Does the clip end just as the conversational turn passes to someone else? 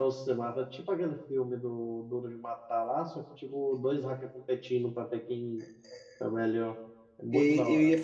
Yes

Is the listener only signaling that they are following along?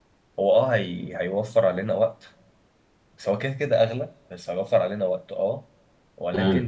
Yes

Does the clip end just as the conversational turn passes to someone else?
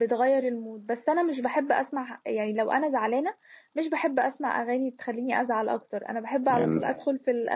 No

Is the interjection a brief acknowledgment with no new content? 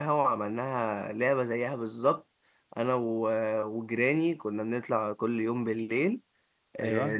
Yes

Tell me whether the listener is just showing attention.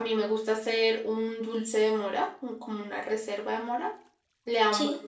Yes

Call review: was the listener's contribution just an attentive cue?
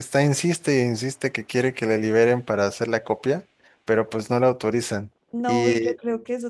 No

